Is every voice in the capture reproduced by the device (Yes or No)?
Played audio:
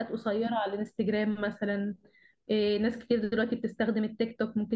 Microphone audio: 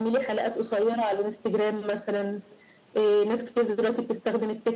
Yes